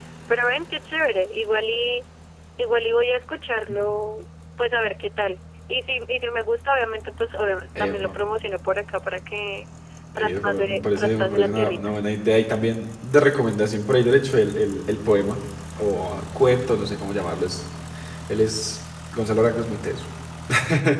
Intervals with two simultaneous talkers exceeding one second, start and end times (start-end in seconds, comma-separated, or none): 10.2-11.8